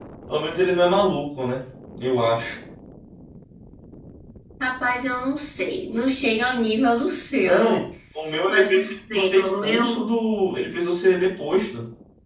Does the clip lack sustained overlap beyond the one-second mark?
No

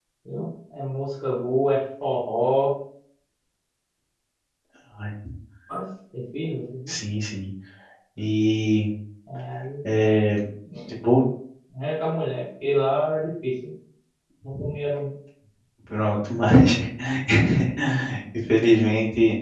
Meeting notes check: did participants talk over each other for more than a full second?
No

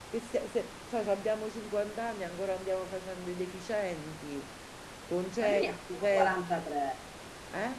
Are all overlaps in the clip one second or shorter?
No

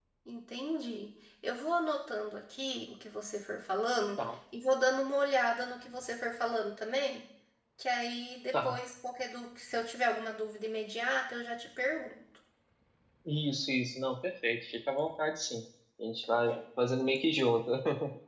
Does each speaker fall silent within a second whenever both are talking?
Yes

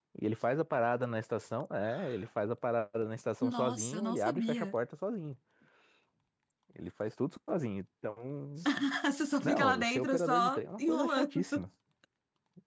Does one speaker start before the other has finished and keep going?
Yes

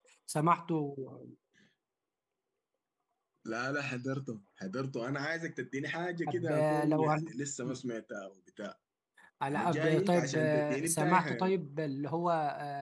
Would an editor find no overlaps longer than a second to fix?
No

